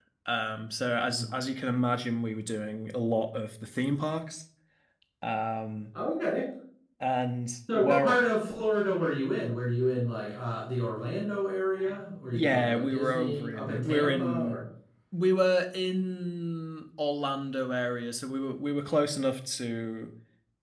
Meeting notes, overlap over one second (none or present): present